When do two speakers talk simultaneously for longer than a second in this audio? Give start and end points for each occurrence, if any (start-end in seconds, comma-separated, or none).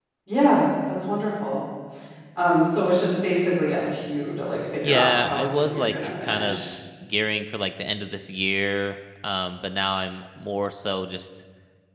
4.8-6.7